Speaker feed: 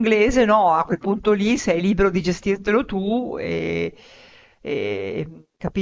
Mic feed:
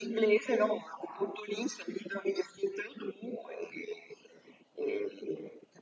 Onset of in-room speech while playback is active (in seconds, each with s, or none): none